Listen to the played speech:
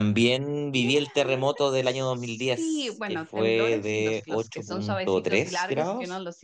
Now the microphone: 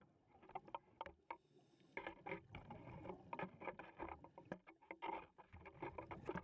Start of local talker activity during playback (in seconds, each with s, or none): none